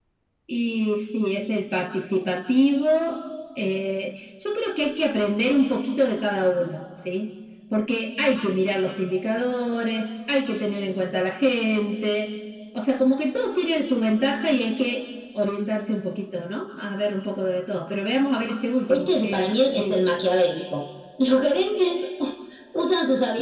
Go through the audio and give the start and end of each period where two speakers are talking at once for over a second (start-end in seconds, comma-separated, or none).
18.9-20.1